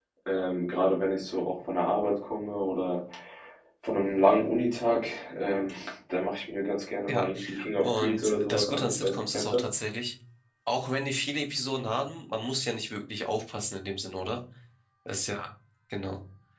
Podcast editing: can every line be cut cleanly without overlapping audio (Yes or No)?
No